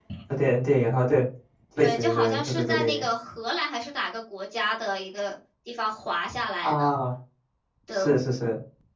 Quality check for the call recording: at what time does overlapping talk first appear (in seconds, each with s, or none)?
1.8 s